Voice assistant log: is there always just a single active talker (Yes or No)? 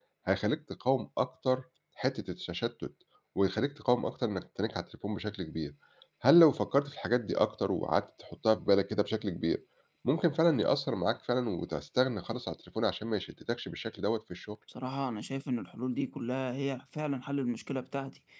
Yes